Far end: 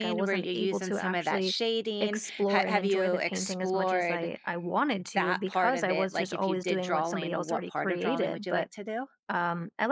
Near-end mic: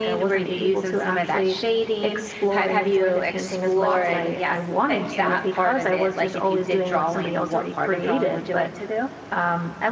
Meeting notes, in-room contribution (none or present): present